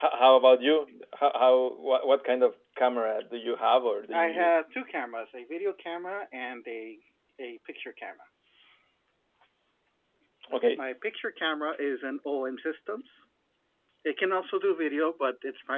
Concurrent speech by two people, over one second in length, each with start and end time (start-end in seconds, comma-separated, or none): none